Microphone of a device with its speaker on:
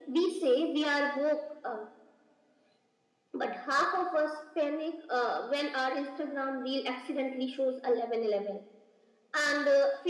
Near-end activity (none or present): none